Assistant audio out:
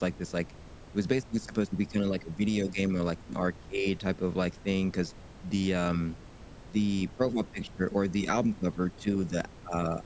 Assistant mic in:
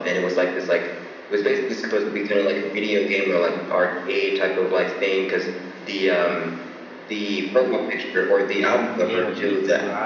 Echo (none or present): present